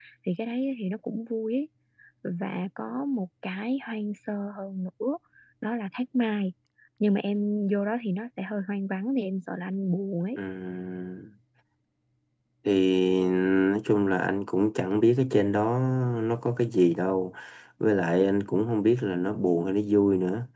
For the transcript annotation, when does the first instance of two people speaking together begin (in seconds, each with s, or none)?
none